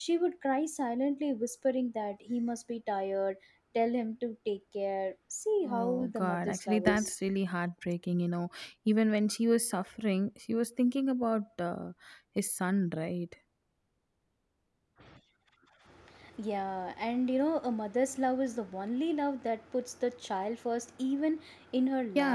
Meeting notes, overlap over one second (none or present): present